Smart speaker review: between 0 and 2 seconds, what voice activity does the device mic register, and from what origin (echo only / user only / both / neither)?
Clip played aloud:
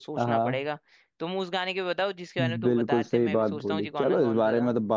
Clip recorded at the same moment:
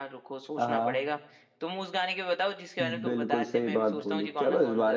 echo only